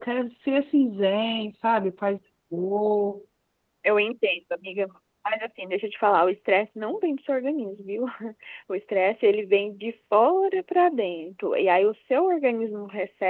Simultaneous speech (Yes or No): No